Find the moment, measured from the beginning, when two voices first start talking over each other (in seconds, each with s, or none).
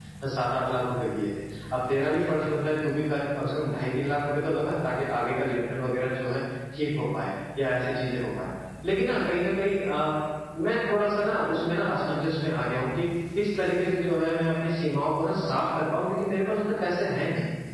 none